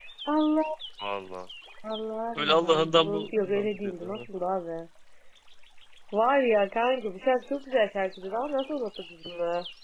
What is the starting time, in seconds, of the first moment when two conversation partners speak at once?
2.4 s

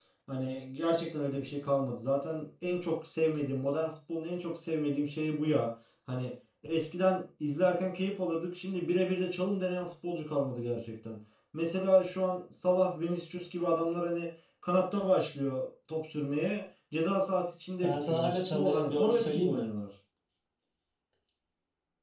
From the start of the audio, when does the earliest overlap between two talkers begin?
17.8 s

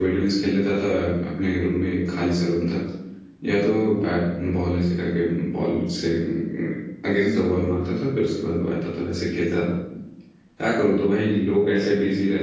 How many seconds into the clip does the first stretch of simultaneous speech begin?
none

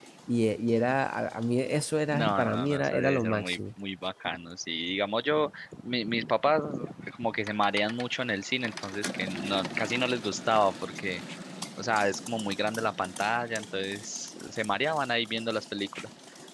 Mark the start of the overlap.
2.1 s

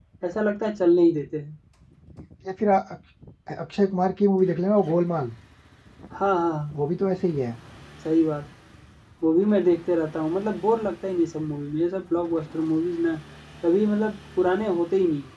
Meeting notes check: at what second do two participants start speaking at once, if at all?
none

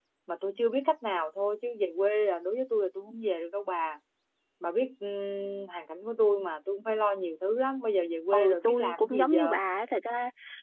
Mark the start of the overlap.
8.3 s

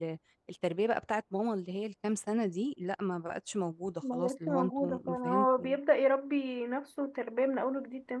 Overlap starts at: 4.0 s

